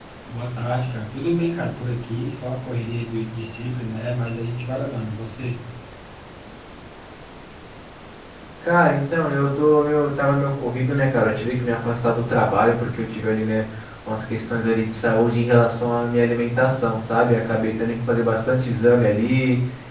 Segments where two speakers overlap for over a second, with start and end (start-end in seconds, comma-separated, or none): none